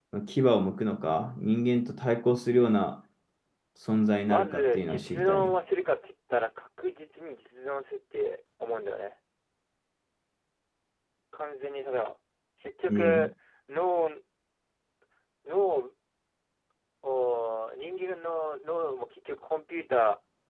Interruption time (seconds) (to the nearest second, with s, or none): 4 s